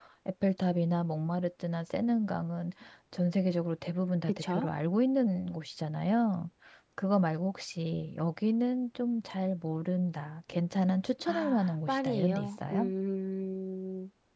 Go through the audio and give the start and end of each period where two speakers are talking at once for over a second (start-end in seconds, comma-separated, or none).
11.2-12.9